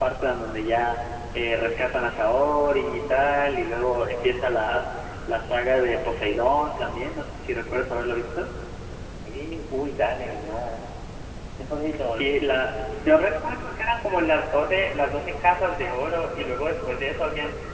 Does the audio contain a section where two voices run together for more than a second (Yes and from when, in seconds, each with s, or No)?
No